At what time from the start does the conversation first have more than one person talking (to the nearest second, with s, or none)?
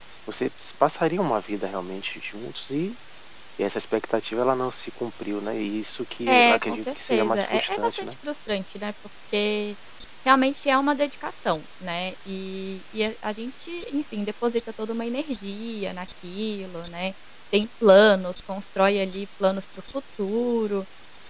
6 s